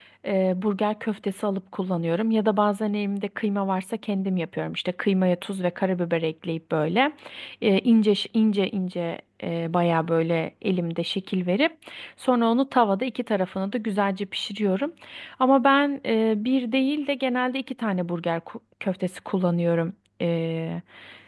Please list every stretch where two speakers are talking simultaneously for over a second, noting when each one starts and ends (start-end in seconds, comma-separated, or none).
none